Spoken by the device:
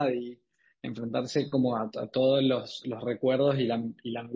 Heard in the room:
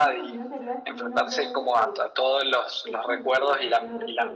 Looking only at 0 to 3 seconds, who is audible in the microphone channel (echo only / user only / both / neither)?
both